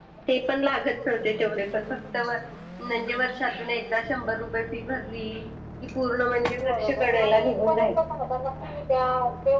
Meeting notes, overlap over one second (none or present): present